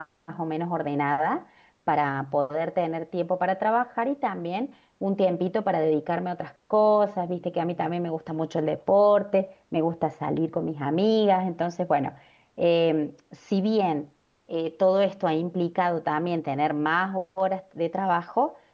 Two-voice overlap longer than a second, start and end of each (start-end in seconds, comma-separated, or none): none